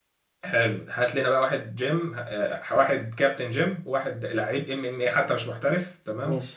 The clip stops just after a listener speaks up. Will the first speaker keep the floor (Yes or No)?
Yes